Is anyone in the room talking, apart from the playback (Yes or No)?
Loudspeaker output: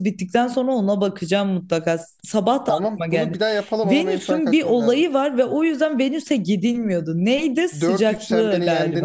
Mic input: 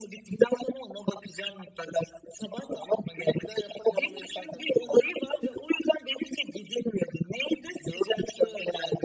No